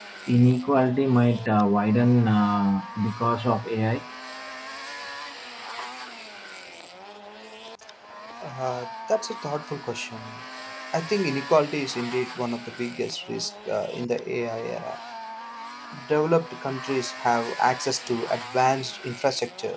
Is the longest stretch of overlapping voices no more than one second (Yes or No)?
Yes